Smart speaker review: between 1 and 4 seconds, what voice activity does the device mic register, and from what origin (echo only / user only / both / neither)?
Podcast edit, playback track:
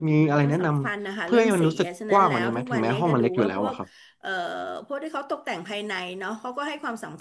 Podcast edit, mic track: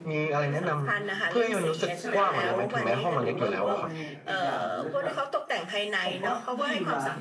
both